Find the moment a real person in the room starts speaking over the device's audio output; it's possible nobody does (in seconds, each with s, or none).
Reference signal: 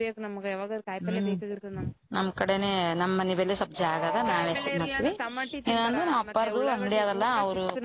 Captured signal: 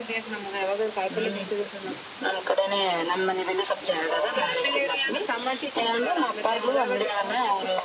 none